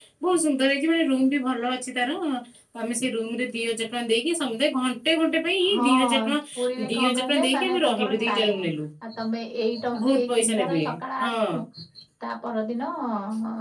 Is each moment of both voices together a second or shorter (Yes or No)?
No